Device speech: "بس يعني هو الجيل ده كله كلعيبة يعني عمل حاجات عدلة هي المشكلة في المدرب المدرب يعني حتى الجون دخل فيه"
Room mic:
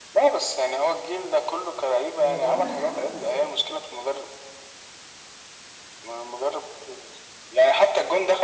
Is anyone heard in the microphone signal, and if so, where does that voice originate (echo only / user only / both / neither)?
both